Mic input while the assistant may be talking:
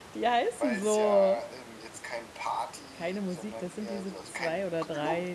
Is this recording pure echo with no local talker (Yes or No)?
No